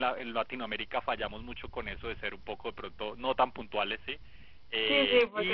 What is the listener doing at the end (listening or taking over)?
taking over